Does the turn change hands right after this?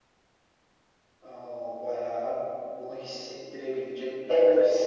Yes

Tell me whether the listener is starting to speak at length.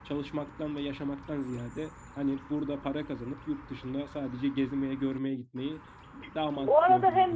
Yes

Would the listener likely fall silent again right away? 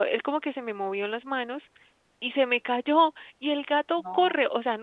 Yes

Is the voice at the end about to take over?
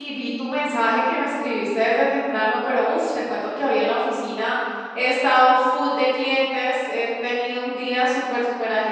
No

